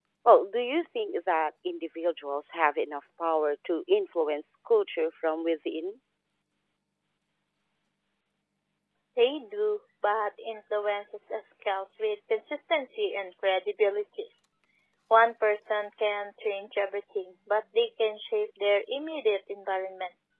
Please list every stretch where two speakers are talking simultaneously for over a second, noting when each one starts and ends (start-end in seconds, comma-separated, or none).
none